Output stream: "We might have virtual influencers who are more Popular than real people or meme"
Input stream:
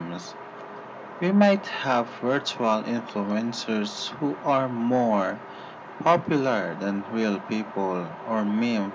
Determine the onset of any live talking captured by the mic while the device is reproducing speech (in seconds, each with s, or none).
none